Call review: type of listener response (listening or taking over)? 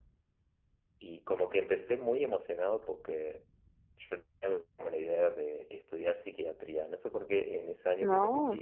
listening